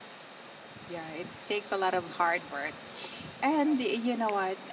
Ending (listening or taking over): listening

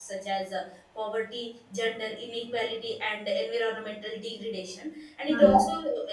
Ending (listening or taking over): listening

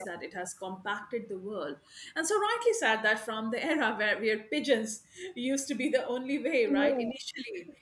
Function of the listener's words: listening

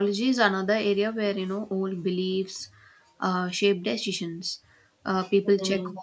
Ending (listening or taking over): listening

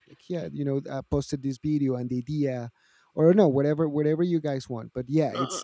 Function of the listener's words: taking over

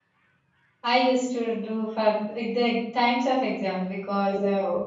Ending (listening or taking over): listening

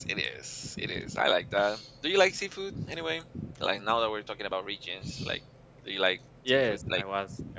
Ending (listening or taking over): taking over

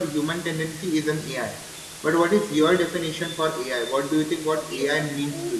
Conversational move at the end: taking over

